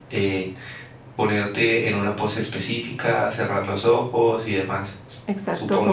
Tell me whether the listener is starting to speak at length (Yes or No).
Yes